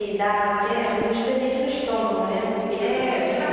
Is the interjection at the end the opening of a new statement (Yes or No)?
Yes